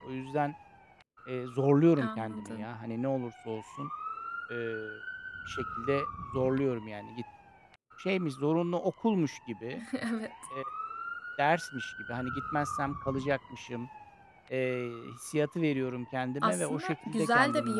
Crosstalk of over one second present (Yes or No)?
Yes